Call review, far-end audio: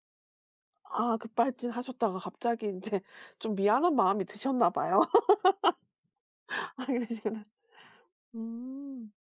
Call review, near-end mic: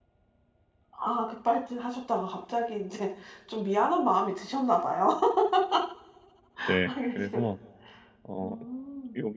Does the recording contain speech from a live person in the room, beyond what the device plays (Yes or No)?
Yes